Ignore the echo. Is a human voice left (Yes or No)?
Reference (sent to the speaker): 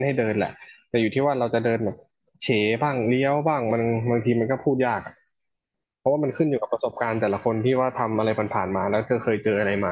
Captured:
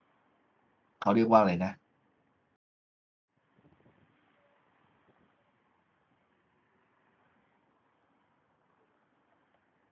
Yes